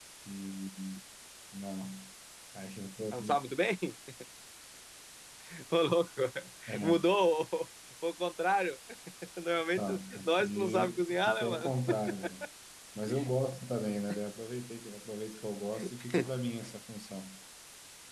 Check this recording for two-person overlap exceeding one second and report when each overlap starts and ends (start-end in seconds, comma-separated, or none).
9.8-11.7